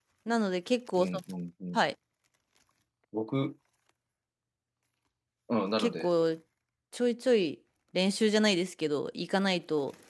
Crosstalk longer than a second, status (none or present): none